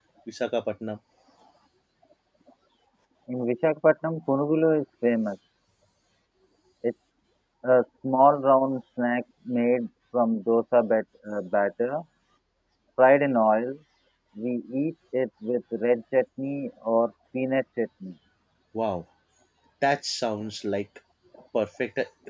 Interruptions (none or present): none